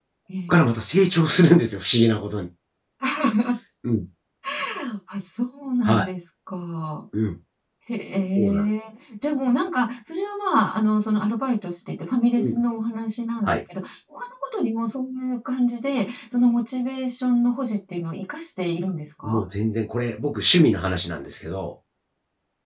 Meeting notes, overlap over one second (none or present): none